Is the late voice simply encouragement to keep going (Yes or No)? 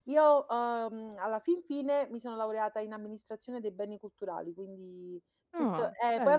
Yes